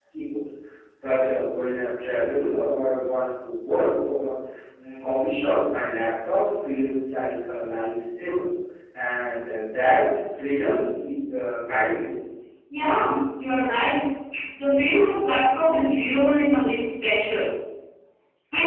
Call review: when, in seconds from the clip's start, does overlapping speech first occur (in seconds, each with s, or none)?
none